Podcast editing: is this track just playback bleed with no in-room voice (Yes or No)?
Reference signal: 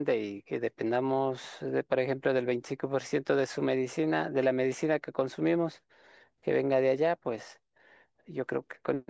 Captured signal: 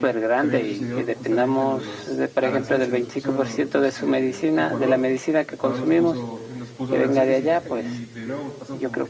No